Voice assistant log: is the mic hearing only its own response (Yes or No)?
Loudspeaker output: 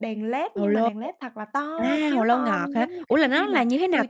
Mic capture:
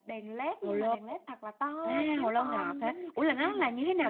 Yes